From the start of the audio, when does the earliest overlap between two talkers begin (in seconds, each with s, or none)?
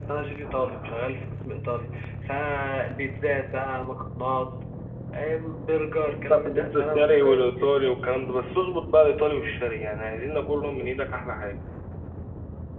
6.0 s